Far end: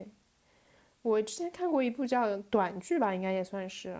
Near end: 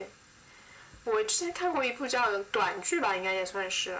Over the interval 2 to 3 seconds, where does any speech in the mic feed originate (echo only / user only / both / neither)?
echo only